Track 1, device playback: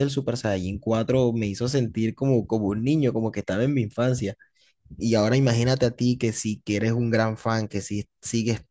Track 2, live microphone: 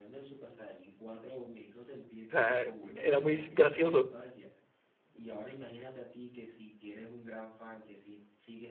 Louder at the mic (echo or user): user